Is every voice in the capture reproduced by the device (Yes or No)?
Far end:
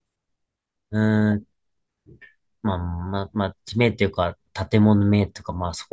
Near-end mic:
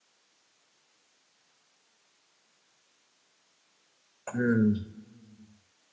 No